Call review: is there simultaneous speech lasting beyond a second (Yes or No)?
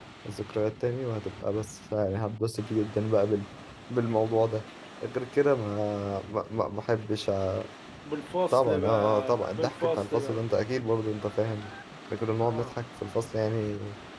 Yes